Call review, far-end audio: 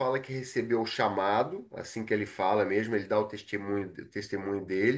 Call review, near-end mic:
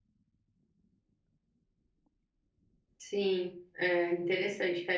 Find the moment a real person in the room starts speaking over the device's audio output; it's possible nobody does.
3.0 s

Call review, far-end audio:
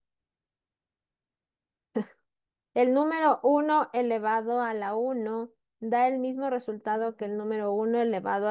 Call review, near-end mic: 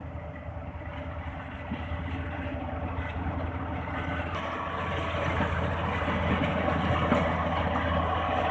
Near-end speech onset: none

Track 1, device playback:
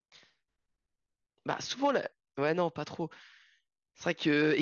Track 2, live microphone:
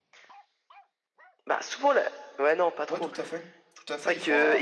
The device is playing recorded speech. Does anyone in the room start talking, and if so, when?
2.9 s

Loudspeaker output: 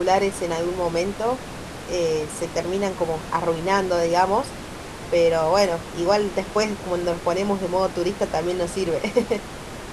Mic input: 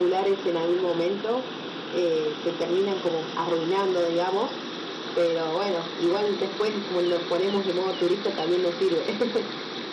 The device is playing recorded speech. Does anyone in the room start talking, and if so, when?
none

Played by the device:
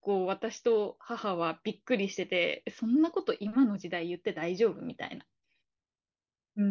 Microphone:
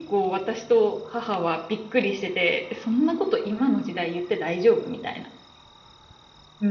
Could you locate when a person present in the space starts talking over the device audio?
none

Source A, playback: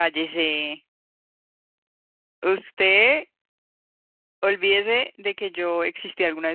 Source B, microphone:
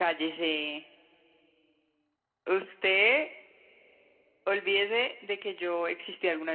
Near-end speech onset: none

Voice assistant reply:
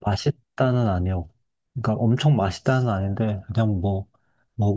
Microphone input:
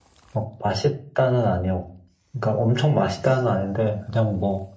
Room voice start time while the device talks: none

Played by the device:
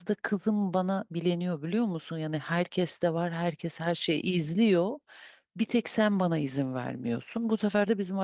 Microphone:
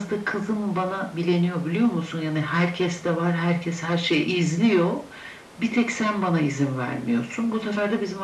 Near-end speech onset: none

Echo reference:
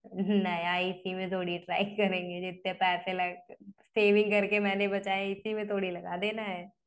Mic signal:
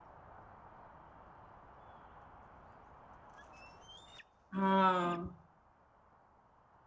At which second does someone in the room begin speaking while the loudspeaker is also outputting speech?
4.6 s

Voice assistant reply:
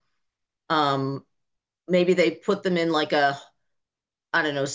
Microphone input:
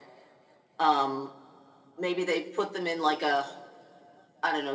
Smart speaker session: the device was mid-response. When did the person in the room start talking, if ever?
none

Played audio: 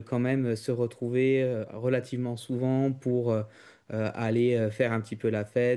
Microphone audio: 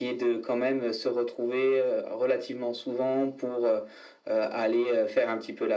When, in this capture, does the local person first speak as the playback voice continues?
none

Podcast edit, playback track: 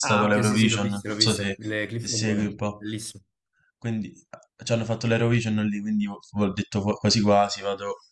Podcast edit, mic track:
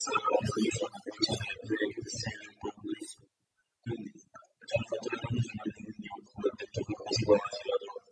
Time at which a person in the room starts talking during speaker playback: none

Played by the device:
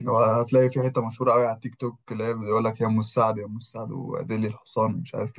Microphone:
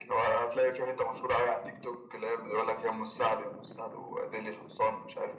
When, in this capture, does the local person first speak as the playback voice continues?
none

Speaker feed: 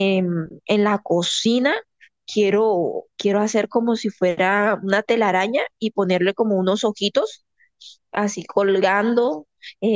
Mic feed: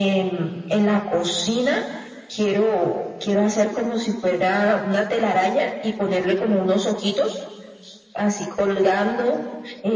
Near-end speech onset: none

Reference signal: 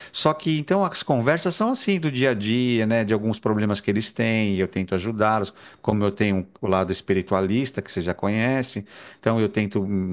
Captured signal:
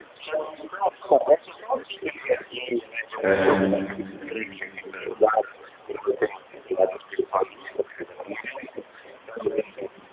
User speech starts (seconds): 3.2 s

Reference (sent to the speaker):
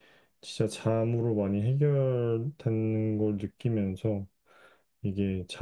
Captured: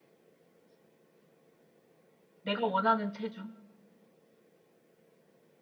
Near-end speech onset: 2.4 s

